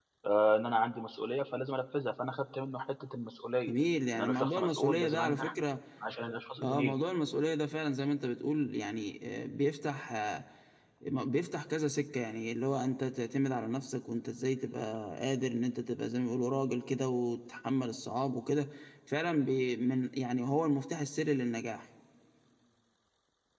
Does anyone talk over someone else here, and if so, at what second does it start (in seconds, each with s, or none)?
4.2 s